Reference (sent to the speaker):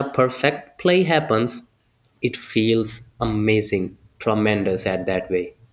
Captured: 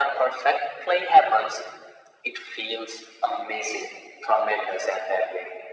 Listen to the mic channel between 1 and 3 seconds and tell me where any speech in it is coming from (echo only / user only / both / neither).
echo only